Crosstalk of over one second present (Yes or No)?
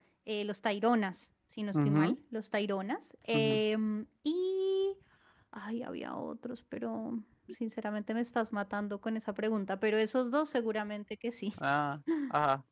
No